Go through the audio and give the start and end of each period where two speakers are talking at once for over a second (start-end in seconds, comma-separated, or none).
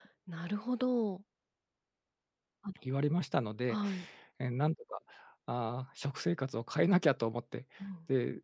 none